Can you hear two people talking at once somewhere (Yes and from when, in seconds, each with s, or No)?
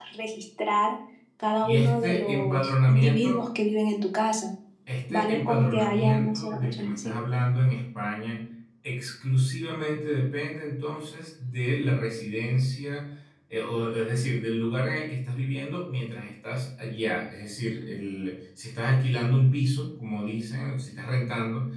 Yes, from 1.6 s